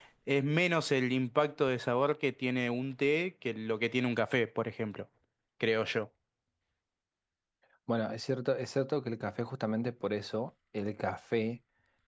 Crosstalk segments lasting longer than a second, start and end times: none

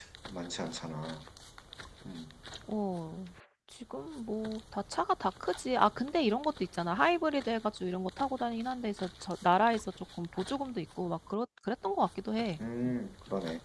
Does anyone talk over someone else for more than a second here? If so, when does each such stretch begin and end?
none

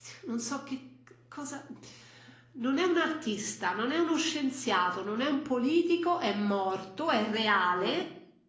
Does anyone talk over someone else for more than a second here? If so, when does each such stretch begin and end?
none

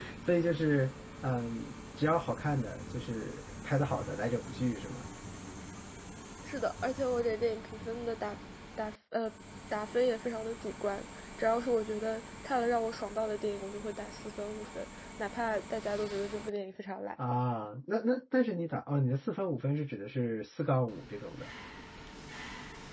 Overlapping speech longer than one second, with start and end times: none

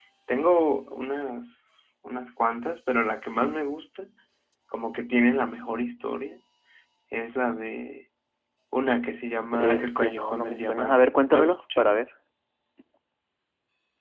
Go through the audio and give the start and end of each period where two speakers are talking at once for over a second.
9.5-12.0

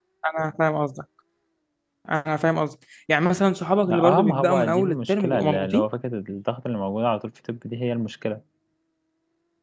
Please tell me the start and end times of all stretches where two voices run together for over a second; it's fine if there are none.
3.9-5.8

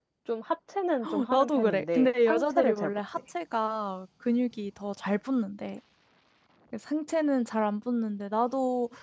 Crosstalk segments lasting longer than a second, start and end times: 1.3-3.0

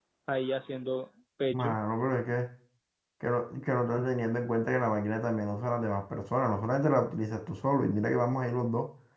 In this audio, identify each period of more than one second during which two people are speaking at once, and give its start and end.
none

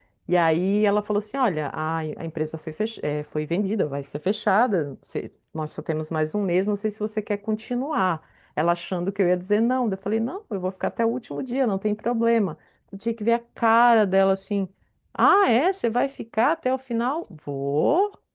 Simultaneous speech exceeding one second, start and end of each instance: none

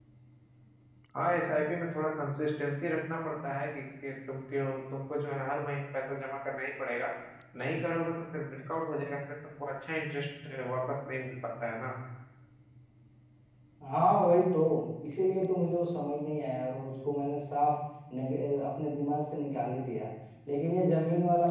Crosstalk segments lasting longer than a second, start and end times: none

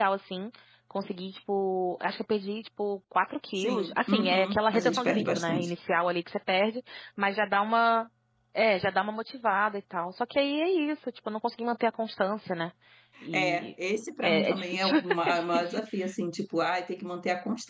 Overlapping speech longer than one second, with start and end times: 3.6-5.7, 14.2-15.8

